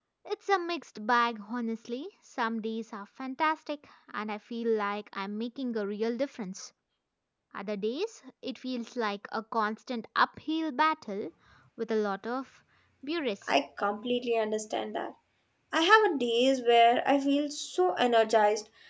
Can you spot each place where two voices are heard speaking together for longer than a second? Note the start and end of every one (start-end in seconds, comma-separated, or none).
none